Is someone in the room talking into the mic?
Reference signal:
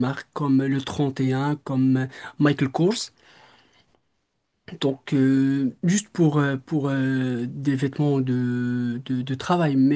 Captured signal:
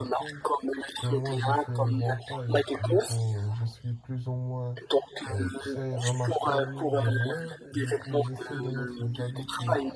Yes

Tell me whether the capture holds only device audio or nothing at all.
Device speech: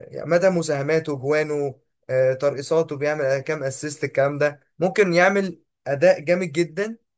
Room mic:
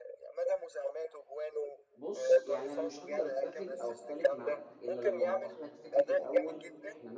No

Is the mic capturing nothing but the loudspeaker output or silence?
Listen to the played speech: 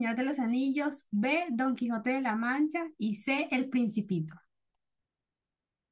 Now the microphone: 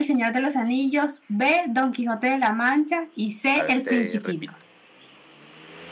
No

